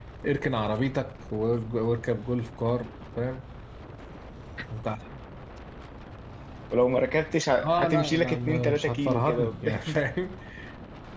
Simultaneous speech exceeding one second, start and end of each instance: 7.6-9.7

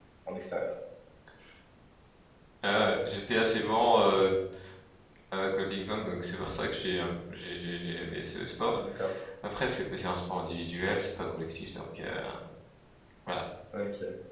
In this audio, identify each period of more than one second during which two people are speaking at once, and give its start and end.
none

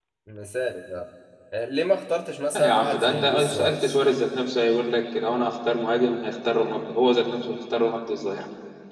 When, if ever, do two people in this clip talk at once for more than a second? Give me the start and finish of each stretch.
2.5-4.0

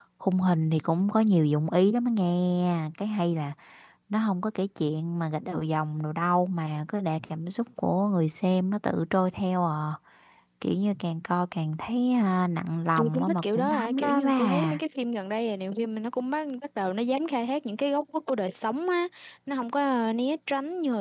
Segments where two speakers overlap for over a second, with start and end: 13.0-14.8

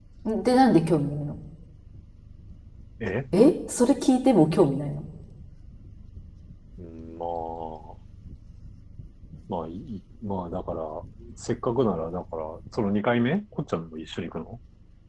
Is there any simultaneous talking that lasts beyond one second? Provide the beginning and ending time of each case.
none

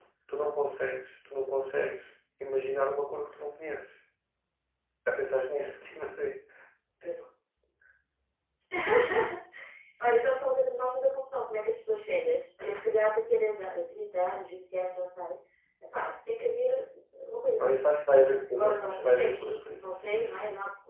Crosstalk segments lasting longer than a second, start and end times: 18.5-19.8

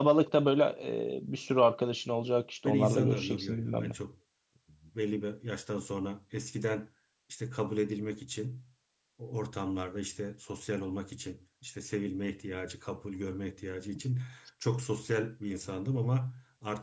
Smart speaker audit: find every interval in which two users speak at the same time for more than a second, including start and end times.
2.6-3.9

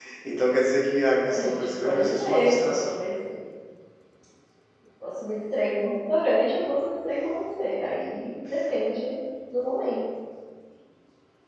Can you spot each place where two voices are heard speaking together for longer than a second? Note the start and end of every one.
1.3-3.0

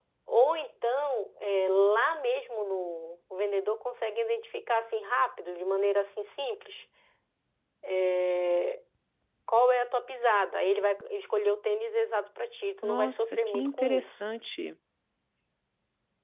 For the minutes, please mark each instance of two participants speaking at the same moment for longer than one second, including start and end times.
12.8-14.1

